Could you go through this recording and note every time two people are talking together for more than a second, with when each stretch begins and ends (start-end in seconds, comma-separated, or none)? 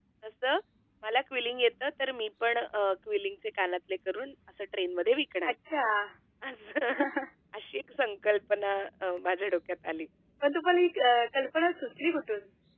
none